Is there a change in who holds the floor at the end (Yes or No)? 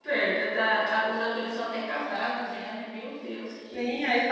Yes